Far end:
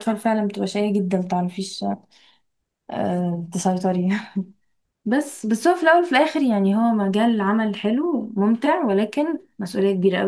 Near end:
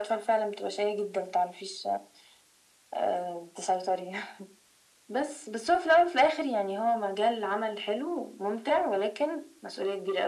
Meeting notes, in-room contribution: none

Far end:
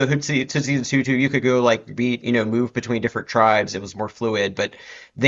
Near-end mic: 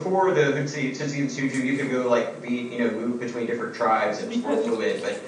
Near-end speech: present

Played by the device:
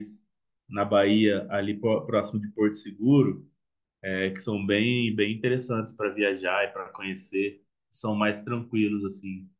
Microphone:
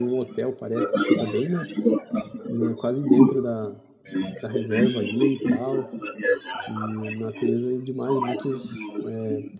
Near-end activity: present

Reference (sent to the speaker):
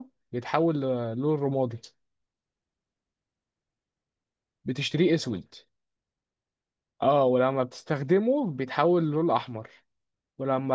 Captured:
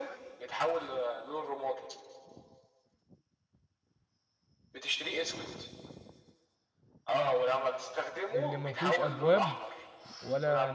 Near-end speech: present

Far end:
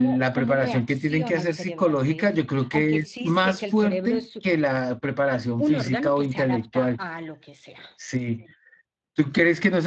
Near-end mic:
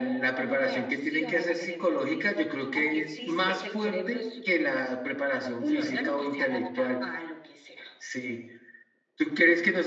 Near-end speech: none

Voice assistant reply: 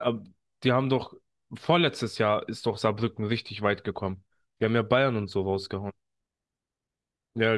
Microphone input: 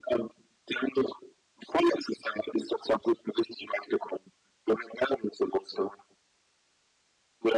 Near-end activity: none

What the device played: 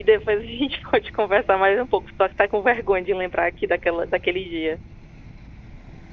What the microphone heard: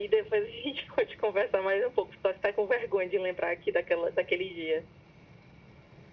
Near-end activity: none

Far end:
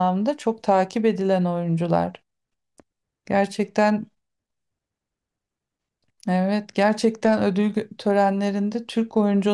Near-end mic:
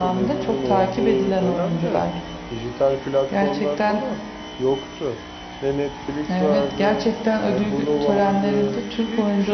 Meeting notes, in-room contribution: present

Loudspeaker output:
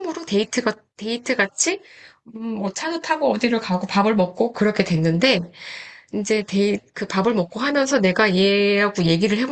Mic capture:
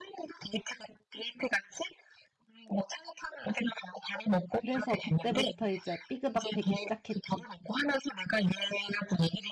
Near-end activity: present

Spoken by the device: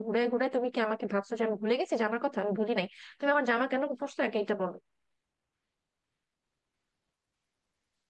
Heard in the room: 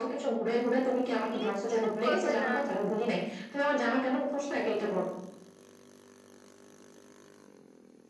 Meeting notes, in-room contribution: present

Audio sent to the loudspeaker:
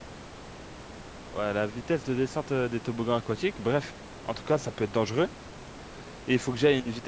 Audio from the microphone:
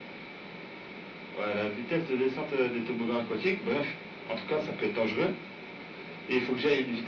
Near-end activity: none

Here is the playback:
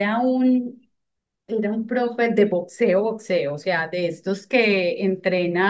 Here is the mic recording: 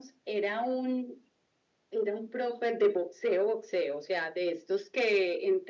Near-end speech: none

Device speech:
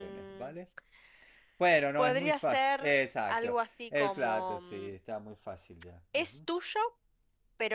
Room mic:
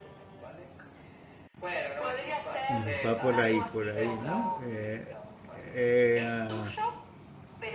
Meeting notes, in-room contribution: present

